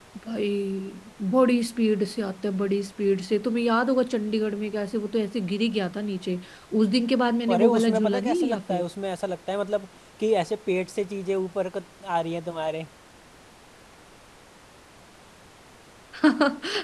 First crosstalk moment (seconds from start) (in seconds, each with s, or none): 7.5 s